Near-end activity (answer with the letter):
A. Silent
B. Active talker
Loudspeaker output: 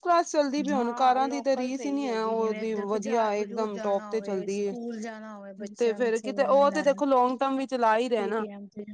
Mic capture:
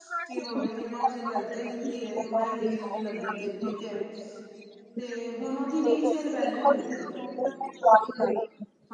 B